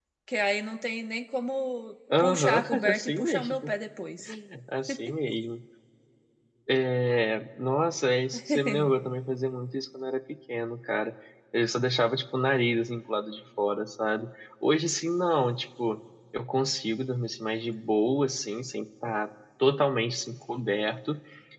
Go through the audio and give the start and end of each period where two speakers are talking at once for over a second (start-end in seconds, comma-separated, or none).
2.2-3.7